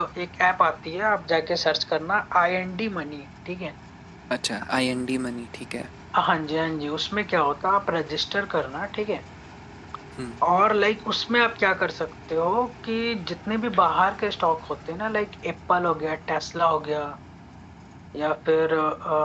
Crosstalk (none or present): none